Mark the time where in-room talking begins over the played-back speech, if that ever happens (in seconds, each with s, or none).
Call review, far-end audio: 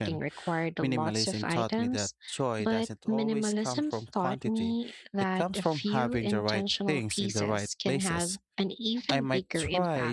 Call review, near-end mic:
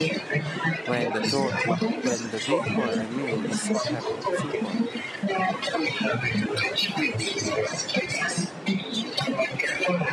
0.8 s